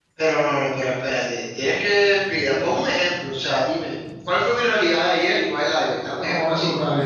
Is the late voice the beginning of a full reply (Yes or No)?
Yes